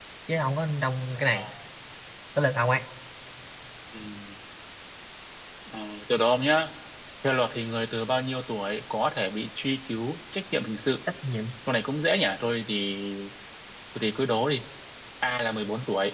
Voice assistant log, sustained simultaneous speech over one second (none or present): none